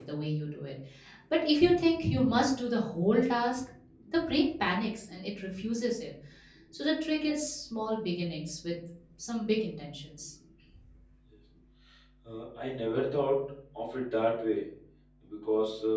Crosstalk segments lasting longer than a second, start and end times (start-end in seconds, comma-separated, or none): none